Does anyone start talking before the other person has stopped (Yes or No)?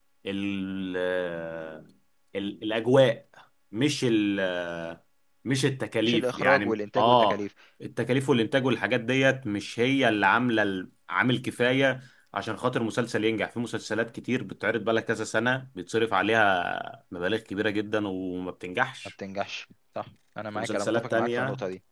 Yes